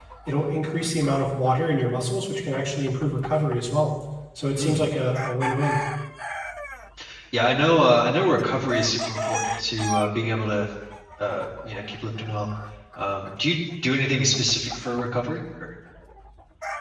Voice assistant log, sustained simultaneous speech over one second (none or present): none